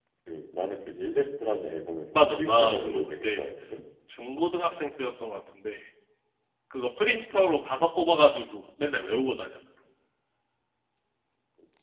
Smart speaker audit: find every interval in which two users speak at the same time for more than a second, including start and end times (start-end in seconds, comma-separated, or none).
2.1-3.4